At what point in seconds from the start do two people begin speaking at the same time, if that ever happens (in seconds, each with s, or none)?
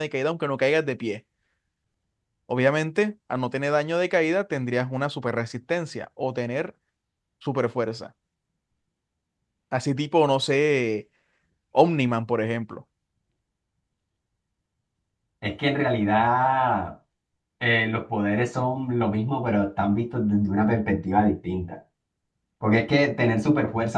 none